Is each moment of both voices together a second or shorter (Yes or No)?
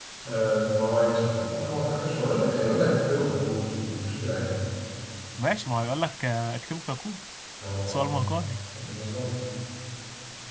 Yes